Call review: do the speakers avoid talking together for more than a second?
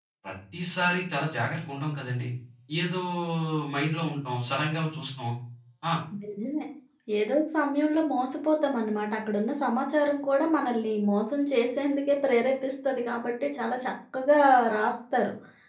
Yes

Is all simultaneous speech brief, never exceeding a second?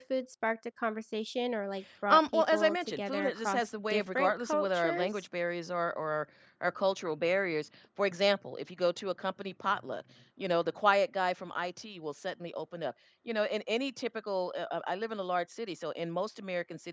No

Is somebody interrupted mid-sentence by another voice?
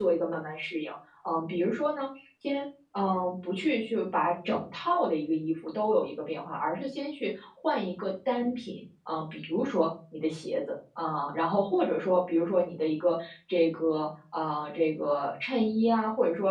No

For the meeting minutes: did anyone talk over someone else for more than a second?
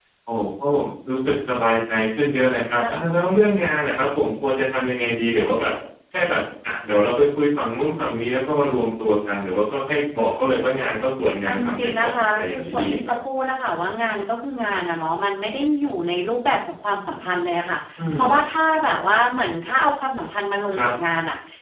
Yes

